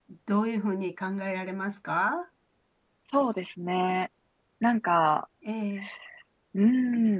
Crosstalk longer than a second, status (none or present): none